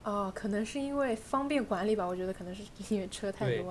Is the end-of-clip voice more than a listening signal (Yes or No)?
Yes